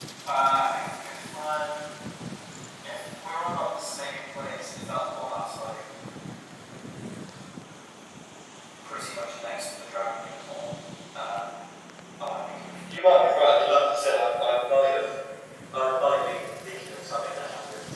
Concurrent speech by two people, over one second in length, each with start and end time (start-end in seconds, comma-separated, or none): 12.9-14.3